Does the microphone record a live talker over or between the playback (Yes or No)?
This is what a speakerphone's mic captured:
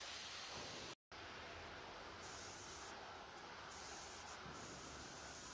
No